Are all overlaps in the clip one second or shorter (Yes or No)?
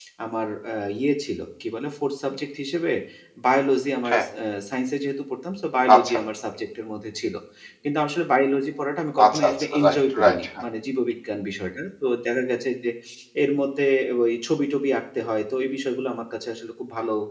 No